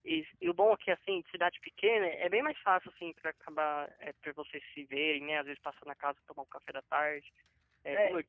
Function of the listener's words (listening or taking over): listening